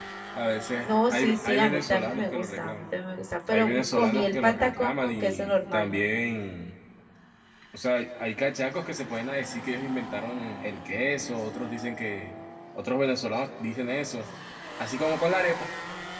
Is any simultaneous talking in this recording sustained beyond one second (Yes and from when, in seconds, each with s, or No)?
Yes, from 0.8 s